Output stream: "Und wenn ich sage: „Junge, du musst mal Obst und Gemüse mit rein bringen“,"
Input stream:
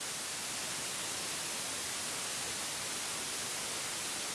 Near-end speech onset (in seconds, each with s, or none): none